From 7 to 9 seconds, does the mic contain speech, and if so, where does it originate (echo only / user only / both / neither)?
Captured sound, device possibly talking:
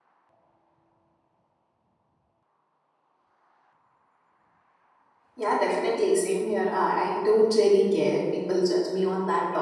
user only